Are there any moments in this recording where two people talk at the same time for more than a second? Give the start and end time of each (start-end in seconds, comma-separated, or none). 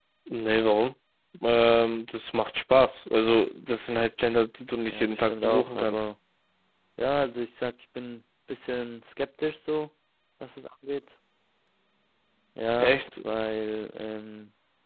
4.9-6.1